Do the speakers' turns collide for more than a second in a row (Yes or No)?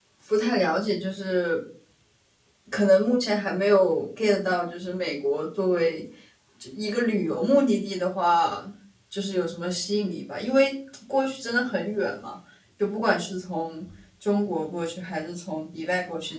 No